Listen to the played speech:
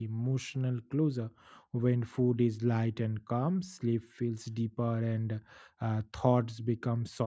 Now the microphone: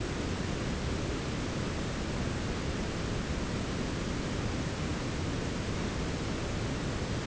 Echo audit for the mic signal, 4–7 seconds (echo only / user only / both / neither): neither